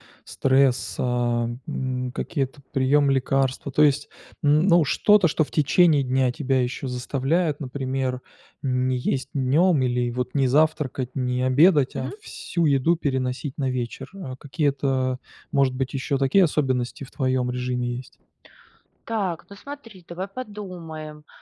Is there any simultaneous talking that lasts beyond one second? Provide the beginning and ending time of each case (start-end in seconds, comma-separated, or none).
none